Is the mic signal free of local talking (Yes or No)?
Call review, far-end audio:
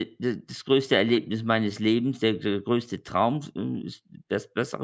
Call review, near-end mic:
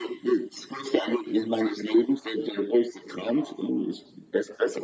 Yes